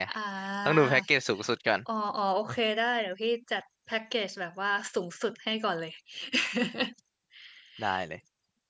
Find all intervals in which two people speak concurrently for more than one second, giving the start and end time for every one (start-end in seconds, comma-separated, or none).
none